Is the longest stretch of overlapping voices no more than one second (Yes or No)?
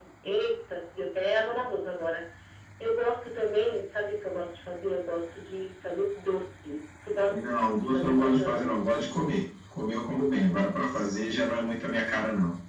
No